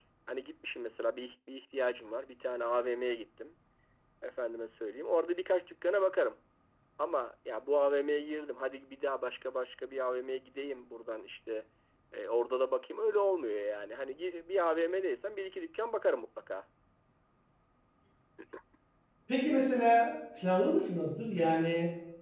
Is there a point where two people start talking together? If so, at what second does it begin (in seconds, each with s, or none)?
none